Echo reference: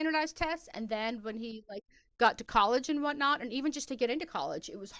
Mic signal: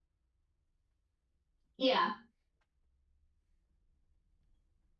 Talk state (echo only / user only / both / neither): user only